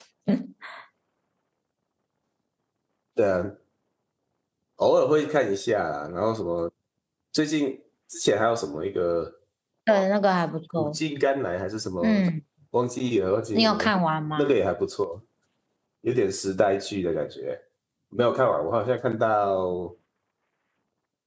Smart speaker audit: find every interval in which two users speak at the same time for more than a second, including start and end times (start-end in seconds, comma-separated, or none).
none